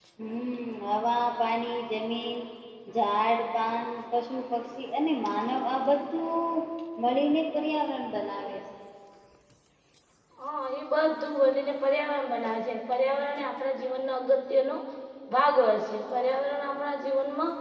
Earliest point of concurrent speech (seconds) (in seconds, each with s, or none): none